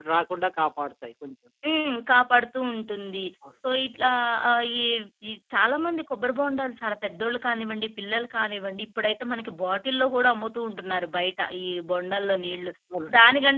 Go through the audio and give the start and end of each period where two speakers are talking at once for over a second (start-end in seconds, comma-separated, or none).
none